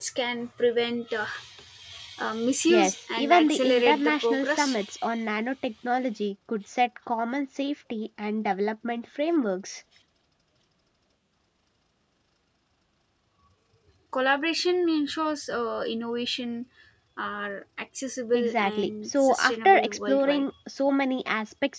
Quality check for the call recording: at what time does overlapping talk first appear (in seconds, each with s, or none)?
2.6 s